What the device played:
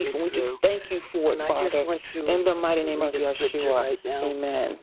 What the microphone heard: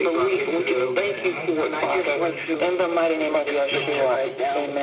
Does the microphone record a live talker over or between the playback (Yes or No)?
Yes